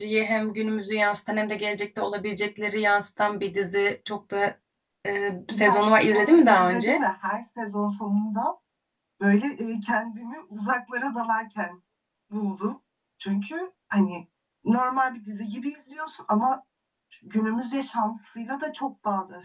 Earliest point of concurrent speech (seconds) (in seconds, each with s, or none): 5.5 s